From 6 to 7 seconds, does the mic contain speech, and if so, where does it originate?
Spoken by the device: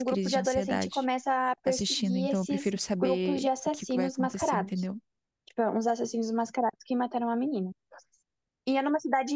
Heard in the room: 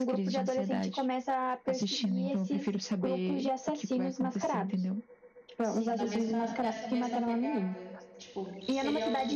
both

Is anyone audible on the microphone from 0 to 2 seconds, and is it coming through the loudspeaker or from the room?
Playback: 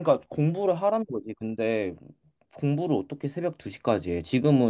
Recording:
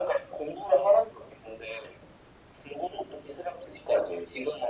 echo only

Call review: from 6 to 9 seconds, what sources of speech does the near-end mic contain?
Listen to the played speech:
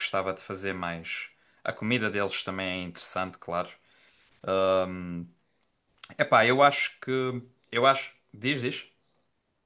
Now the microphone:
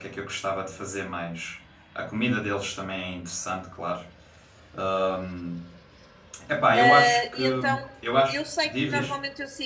both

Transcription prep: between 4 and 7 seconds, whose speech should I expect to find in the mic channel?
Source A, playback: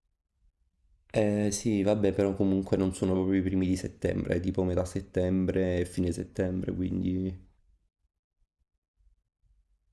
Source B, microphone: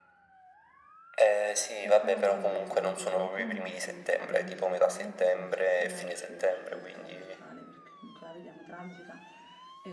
both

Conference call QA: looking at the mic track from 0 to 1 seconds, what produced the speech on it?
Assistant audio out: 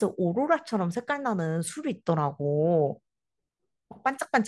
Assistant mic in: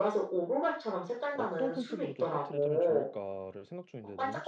echo only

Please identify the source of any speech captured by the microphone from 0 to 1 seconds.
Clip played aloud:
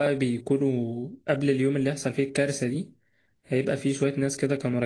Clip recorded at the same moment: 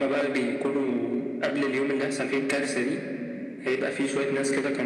echo only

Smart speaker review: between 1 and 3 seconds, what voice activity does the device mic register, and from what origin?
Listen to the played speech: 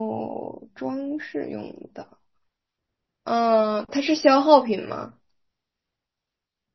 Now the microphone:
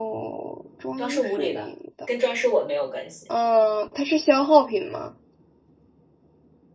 both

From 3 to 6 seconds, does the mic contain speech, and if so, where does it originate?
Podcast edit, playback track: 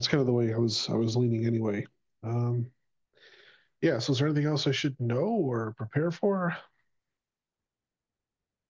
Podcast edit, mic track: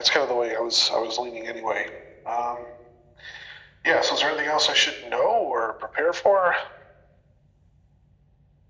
echo only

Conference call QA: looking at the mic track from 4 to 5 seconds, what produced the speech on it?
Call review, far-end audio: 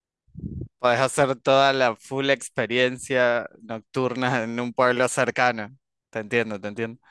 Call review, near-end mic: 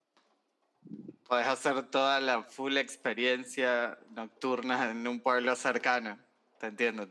echo only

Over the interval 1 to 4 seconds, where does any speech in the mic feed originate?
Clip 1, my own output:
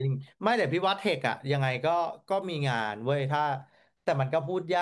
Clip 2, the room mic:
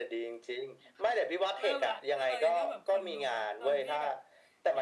both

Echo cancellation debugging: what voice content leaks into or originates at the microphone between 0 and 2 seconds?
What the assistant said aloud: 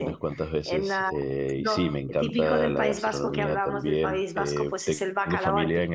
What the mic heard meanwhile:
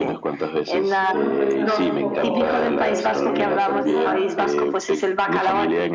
both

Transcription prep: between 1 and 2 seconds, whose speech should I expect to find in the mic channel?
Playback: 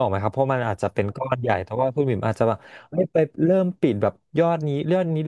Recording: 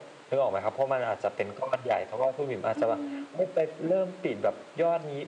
echo only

